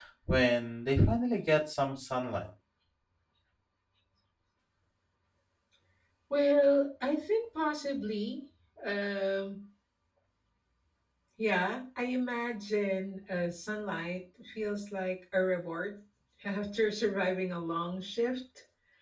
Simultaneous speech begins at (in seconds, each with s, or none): none